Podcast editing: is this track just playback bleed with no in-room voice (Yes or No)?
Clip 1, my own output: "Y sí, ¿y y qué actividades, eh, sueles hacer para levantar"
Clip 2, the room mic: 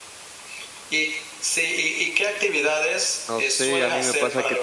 No